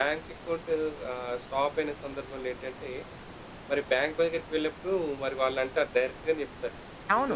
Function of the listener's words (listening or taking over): listening